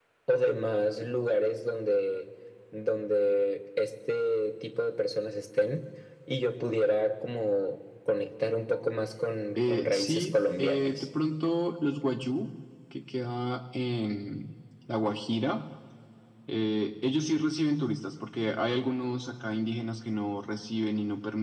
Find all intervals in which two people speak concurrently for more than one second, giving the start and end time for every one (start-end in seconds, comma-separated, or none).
9.6-11.1